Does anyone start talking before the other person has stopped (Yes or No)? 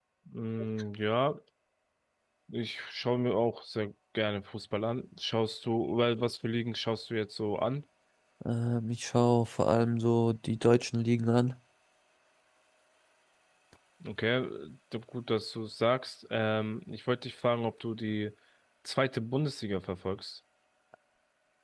No